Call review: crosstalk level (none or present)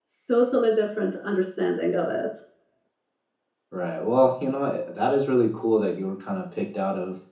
none